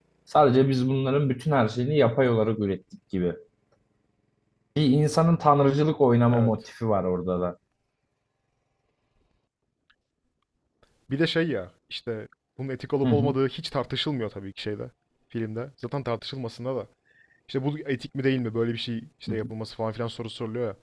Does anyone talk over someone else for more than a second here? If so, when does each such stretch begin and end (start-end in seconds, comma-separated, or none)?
none